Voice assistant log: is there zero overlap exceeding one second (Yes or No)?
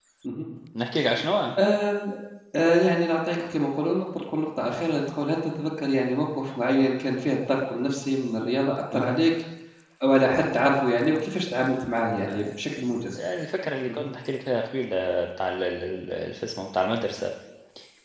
Yes